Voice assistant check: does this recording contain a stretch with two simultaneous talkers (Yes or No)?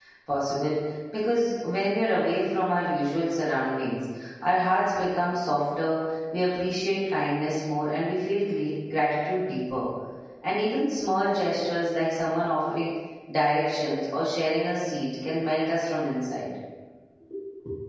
No